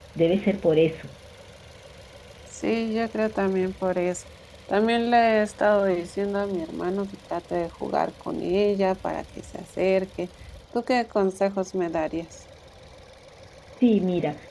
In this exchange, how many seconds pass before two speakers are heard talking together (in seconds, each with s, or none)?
none